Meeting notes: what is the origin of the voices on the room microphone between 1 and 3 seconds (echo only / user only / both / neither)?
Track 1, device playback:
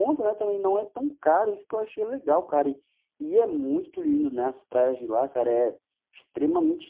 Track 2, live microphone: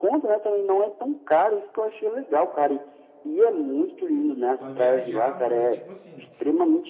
echo only